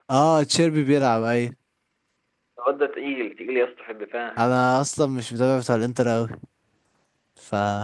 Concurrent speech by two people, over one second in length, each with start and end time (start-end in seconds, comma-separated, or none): none